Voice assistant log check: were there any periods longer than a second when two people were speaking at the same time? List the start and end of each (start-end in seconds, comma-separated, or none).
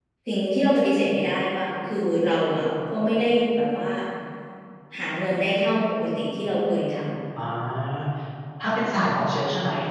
none